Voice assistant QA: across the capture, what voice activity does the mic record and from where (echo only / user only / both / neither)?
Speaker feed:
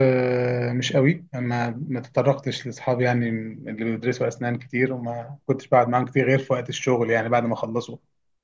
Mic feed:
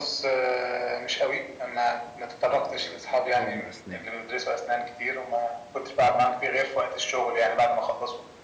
both